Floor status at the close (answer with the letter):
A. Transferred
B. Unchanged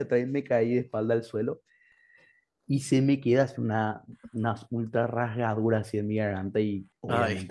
B